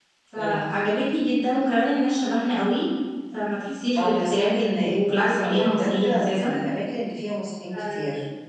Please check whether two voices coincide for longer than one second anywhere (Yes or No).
Yes